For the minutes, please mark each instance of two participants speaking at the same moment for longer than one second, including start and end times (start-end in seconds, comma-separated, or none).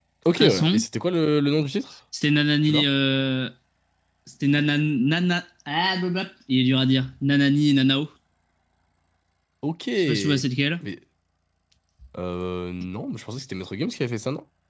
none